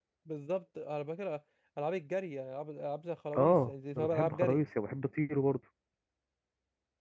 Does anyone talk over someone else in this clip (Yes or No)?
Yes